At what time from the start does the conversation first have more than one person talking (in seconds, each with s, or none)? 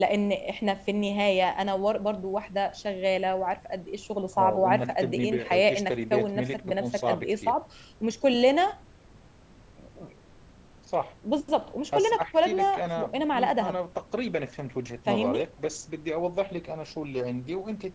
4.4 s